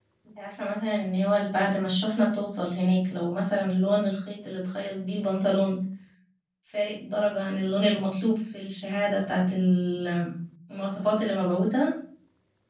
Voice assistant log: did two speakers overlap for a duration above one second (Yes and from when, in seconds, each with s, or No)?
No